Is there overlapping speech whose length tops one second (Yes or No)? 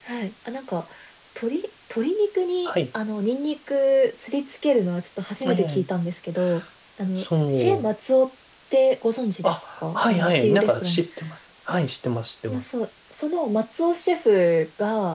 Yes